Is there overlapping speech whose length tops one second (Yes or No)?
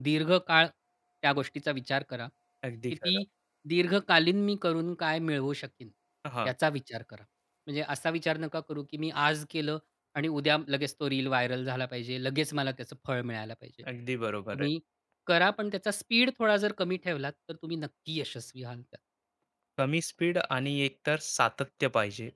No